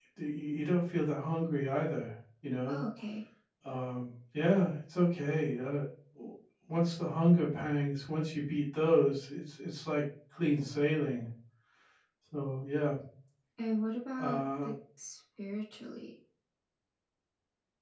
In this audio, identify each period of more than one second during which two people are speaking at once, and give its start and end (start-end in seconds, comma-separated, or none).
none